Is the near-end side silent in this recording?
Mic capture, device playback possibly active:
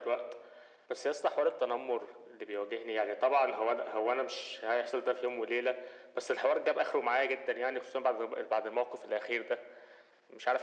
Yes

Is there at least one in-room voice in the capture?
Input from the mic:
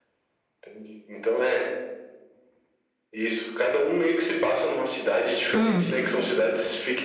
Yes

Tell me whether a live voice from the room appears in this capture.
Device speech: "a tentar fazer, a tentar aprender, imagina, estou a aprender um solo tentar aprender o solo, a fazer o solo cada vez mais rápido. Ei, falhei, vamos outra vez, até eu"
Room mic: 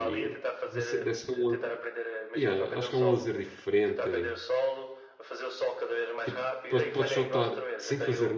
Yes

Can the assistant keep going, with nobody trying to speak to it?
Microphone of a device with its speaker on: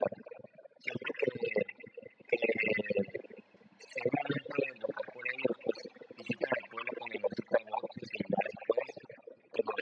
Yes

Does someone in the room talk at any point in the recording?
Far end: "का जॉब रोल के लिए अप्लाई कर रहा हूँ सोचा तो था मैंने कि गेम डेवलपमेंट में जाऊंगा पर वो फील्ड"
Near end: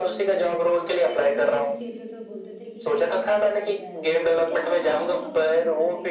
Yes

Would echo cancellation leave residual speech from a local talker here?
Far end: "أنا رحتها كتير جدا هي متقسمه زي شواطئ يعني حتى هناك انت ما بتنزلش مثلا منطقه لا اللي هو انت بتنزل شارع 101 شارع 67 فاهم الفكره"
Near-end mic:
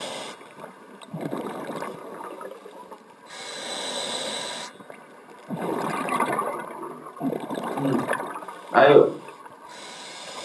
Yes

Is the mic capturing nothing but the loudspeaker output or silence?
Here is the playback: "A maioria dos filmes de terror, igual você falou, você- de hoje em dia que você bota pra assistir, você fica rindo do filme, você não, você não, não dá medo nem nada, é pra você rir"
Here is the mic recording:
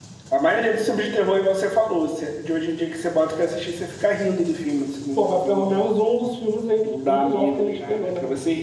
No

